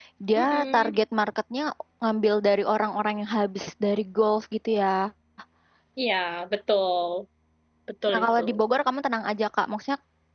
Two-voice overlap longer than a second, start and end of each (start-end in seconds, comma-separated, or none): none